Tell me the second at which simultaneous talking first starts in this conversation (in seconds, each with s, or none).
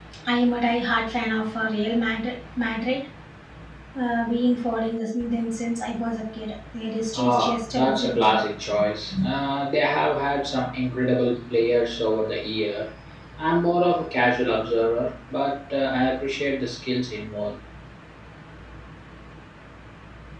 7.1 s